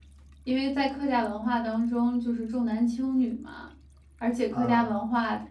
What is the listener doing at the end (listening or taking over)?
listening